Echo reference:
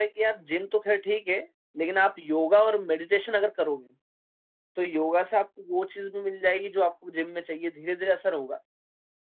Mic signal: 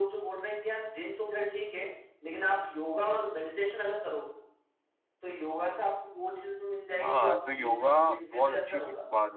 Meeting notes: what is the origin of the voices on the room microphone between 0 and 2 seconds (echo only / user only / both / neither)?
echo only